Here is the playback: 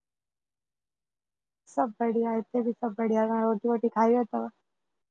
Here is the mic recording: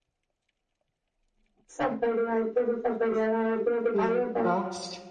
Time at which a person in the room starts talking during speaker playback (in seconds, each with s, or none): 4.0 s